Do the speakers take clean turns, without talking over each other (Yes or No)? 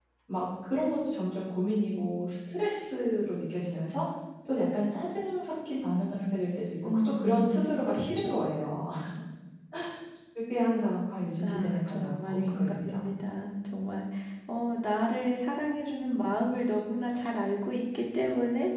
No